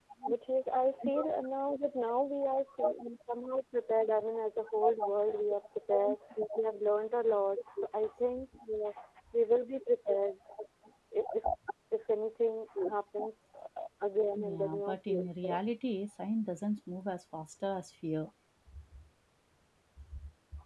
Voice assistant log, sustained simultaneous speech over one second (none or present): present